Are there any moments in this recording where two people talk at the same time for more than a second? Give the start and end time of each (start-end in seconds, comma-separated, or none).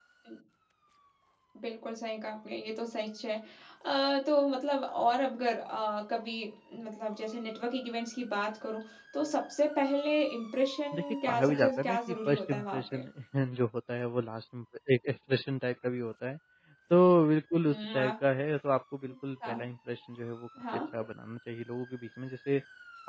10.9-13.0